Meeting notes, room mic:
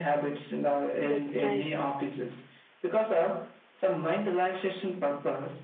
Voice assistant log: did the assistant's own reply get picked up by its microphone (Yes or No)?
Yes